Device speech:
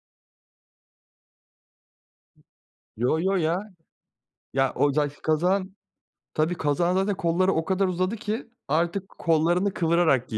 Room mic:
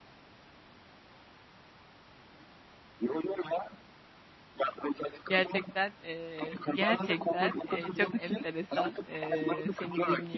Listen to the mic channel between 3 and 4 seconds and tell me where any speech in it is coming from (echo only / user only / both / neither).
echo only